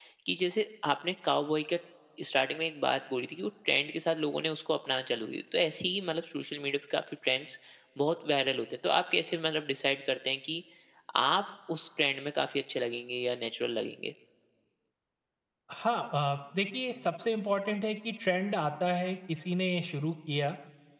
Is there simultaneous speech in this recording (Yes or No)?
No